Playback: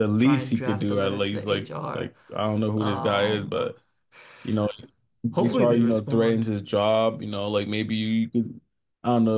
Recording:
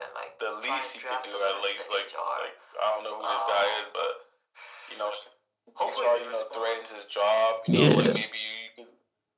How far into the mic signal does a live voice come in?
7.7 s

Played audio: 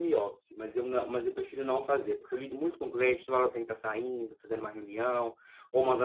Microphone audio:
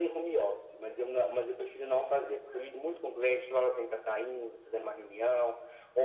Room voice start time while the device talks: none

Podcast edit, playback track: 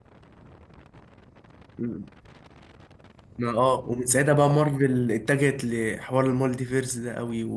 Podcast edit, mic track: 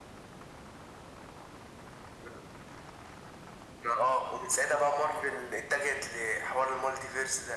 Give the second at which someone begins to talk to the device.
none

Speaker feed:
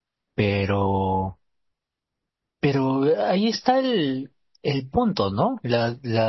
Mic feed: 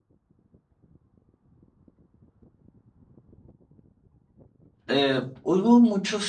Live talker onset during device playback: 4.9 s

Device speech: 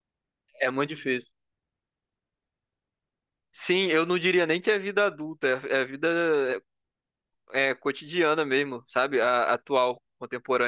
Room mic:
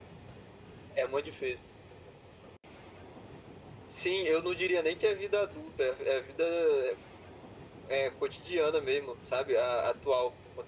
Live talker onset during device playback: none

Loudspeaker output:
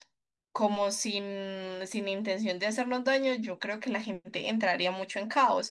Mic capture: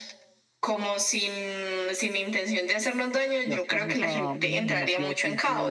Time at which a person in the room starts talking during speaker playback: 3.4 s

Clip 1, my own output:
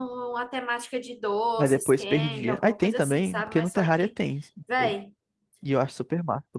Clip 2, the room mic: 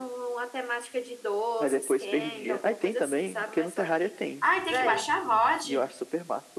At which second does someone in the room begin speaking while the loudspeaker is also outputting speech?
4.4 s

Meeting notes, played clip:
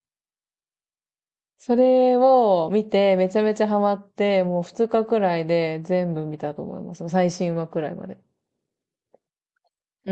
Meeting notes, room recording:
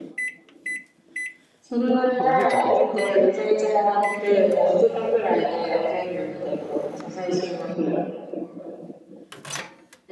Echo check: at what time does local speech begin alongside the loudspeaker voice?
2.2 s

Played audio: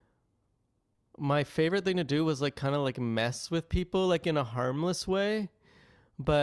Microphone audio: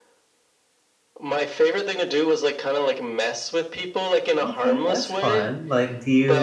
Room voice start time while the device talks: 4.4 s

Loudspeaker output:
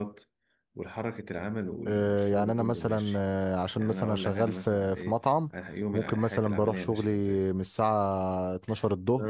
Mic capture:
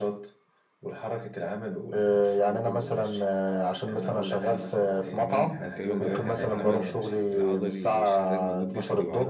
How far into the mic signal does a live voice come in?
5.1 s

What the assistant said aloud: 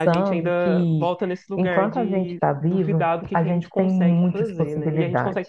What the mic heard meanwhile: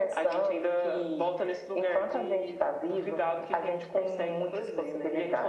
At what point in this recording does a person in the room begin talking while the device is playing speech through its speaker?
none

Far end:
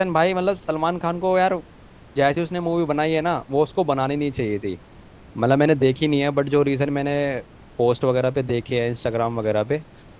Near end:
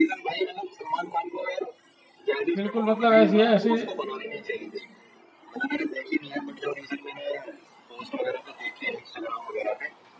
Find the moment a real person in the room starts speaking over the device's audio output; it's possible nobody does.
2.6 s

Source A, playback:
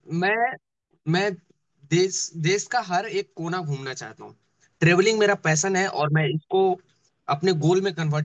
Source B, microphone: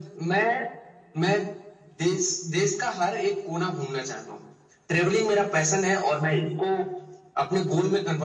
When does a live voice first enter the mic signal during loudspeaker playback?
none

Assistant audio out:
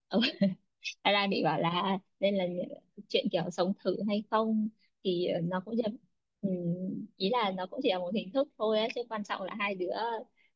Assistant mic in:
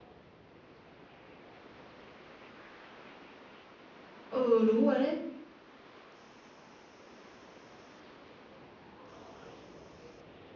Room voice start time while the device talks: 4.2 s

